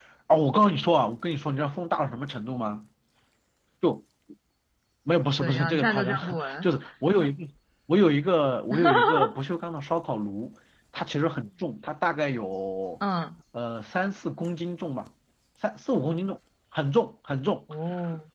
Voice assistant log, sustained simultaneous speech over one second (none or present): present